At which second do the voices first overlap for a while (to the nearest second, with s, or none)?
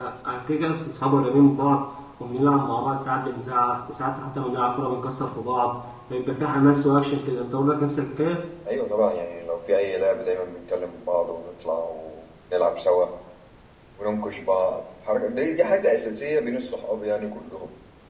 none